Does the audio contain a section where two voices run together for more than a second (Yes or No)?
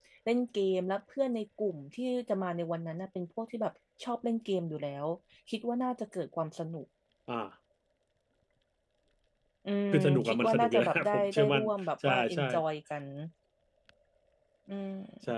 Yes